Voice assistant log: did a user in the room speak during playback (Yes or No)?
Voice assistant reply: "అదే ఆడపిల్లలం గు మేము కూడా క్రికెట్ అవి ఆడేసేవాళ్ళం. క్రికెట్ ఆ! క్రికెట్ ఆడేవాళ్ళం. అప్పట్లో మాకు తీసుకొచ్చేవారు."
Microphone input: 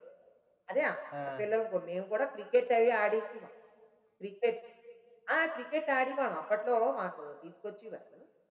Yes